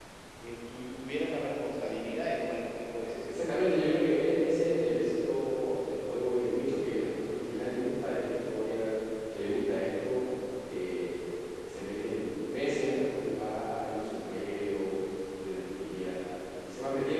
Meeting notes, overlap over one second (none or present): none